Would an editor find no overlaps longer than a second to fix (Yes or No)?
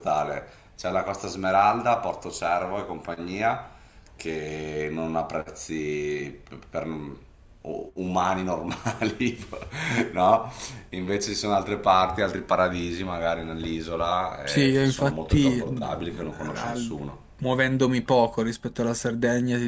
No